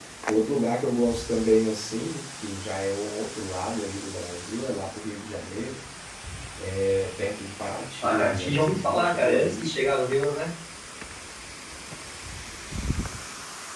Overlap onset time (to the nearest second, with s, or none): 8 s